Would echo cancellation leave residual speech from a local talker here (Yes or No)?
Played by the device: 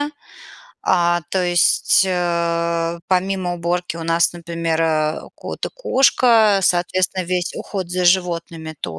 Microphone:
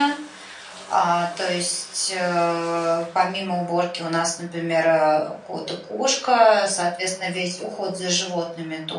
No